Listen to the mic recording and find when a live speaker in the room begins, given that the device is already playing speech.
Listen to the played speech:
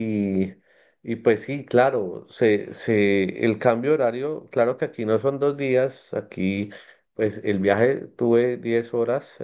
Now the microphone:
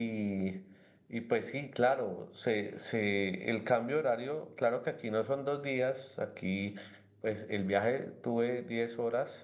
none

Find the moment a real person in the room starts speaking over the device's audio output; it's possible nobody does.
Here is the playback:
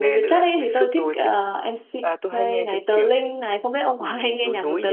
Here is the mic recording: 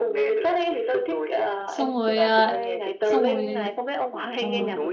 1.7 s

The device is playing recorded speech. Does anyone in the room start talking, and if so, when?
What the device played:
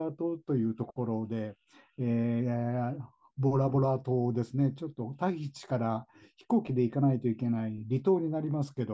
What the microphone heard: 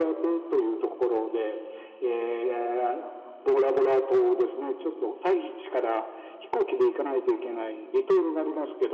none

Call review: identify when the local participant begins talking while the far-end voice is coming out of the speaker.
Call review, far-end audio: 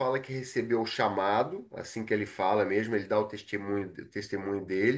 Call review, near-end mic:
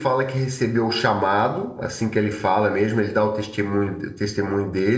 none

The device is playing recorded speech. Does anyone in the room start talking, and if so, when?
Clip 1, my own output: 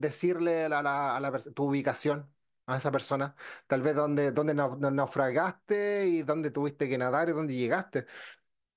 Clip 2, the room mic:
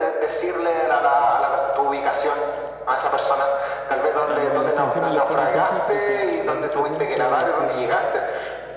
4.3 s

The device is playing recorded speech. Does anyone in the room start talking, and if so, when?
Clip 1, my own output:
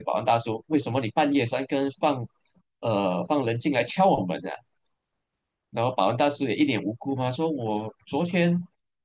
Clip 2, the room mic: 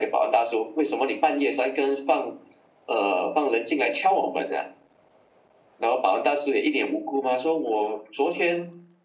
none

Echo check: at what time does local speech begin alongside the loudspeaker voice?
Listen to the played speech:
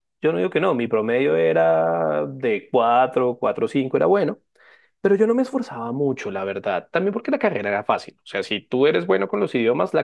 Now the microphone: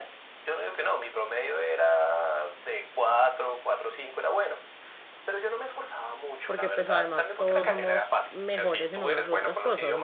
6.4 s

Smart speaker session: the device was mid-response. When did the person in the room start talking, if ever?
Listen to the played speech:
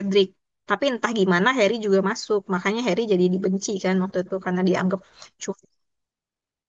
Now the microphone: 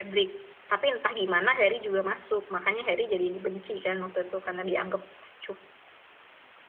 none

